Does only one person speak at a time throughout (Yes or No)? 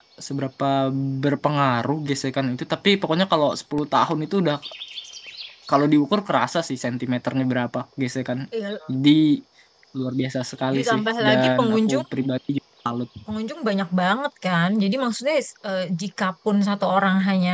No